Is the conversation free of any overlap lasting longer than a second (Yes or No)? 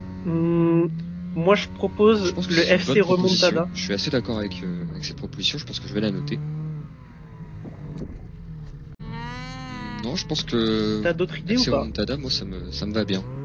No